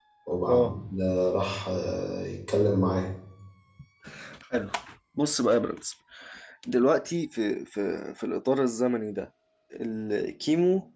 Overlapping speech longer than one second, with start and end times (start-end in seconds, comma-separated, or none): none